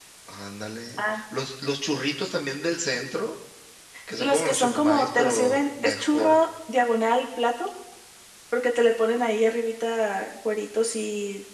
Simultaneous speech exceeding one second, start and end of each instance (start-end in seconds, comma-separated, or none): 4.2-6.4